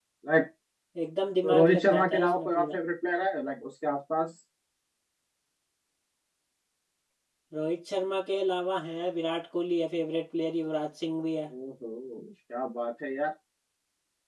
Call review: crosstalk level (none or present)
present